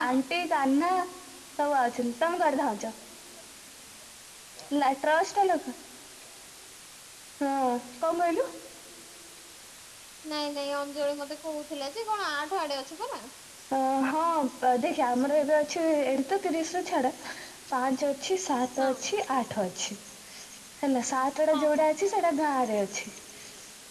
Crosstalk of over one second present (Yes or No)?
No